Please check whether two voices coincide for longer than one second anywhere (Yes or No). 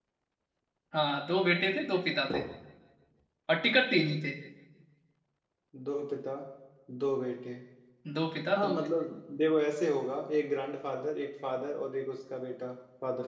No